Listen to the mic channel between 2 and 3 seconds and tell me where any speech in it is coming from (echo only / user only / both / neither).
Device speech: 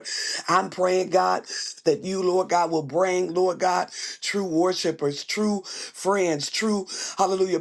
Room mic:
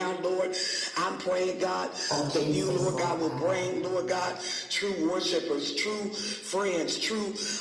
both